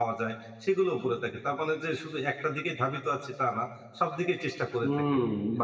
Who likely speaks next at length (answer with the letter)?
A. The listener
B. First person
A